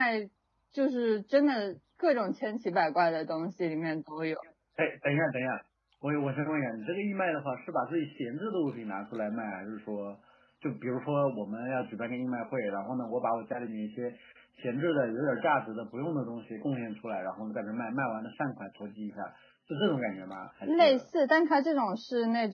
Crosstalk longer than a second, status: none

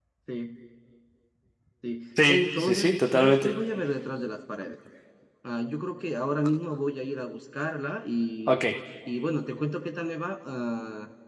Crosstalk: present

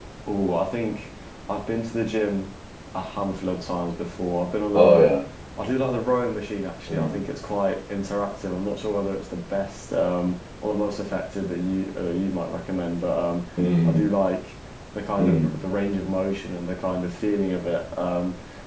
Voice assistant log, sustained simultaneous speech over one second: none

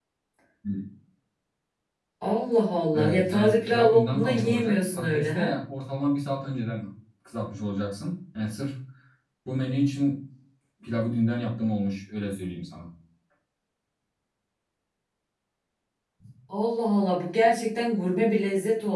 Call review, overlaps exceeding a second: present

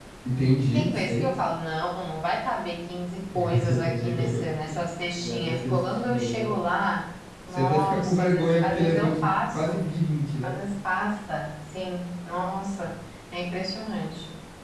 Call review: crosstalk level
present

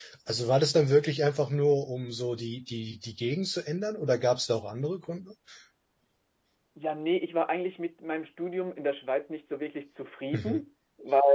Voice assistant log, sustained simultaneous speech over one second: none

